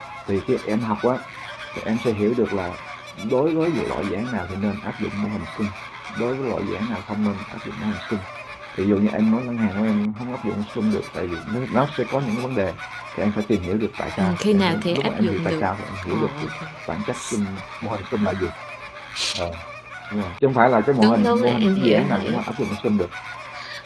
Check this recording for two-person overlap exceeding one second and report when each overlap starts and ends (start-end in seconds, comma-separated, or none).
14.2-15.7, 21.0-22.4